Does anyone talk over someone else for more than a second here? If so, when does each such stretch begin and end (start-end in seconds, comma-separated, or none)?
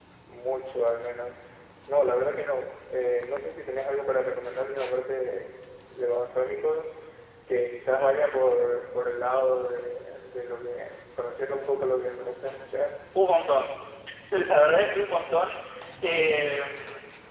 none